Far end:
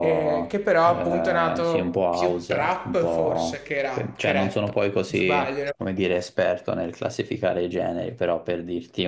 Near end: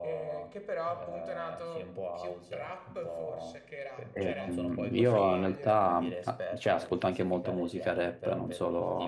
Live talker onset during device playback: 4 s

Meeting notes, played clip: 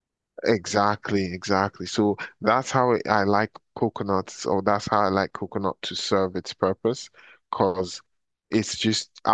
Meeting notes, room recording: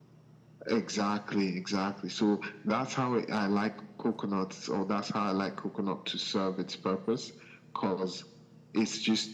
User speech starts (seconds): none

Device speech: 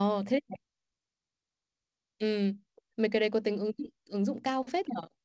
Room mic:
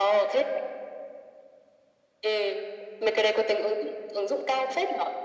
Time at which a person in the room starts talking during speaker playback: none

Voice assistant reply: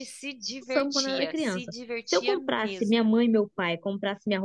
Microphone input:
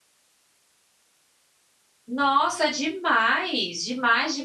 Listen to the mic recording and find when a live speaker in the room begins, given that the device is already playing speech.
2 s

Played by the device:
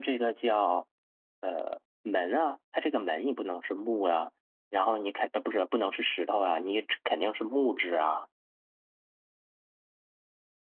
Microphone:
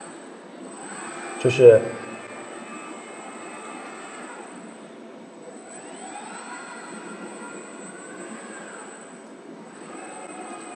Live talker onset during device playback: 1 s

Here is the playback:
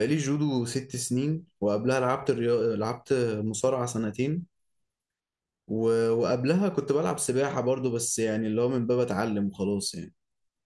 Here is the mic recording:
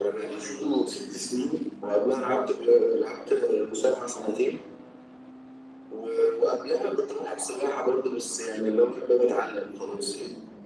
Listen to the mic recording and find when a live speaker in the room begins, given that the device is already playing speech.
none

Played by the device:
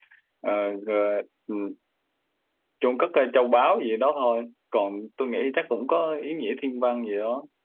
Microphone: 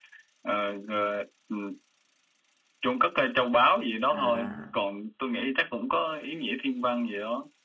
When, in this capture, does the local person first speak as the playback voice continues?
4 s

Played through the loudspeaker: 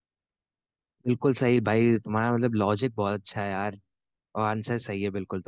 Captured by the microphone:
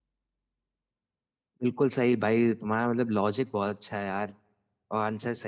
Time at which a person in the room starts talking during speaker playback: none

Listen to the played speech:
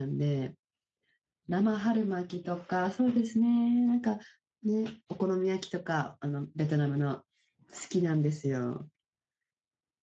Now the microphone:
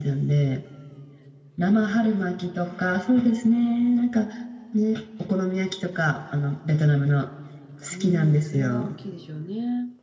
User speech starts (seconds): 8 s

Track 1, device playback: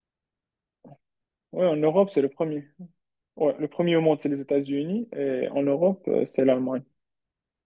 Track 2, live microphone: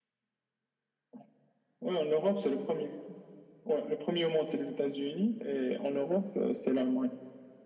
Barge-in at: none

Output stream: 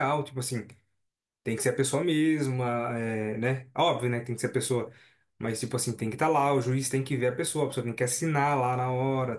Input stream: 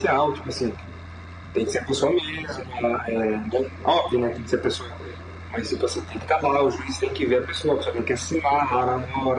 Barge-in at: none

